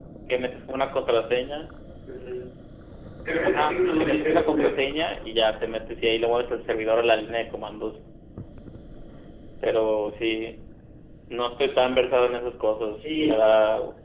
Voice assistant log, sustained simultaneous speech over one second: present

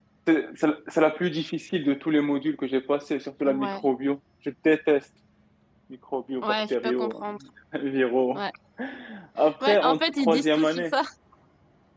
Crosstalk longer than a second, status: present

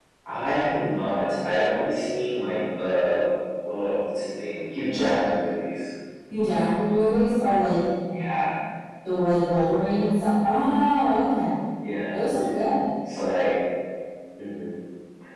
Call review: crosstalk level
none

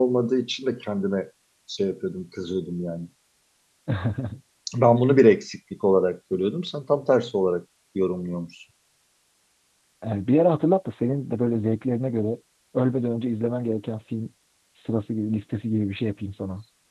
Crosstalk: none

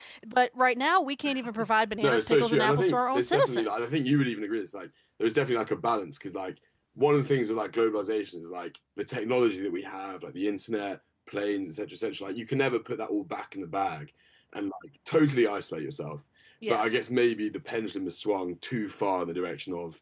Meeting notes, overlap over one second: present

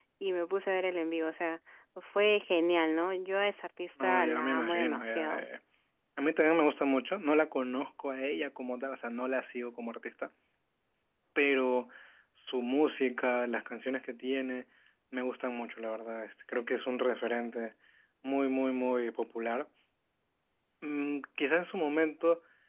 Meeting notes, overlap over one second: present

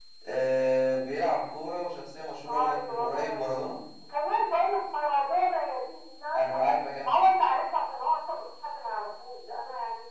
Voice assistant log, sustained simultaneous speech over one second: present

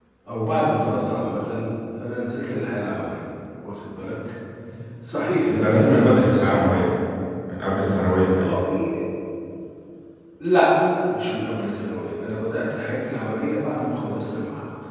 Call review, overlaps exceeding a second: present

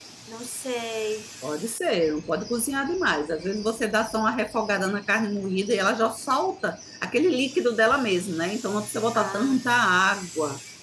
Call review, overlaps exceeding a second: none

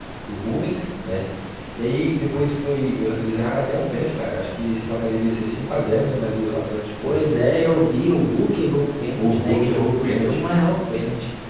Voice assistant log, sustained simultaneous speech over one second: present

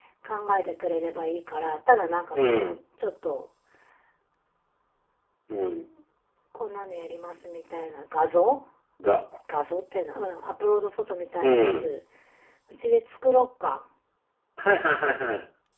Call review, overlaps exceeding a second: none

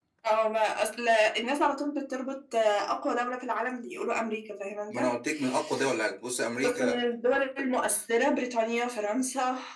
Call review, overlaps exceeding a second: none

